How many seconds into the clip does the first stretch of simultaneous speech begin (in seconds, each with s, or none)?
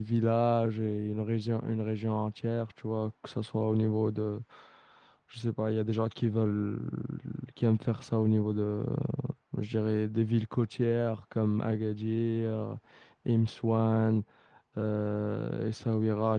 none